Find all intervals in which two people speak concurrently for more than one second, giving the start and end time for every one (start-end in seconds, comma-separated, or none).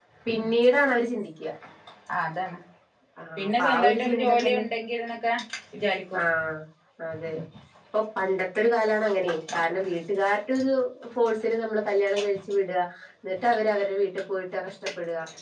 3.4-4.6